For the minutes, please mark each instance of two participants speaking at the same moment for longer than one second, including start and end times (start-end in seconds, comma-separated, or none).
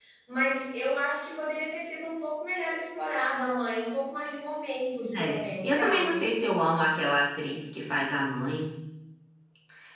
5.0-6.2